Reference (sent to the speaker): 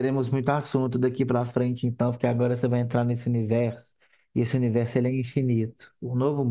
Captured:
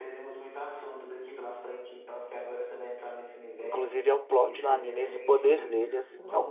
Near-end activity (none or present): present